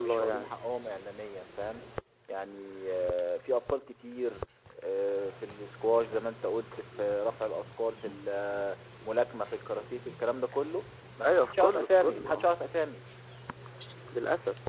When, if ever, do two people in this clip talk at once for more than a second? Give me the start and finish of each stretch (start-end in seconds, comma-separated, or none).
11.2-12.5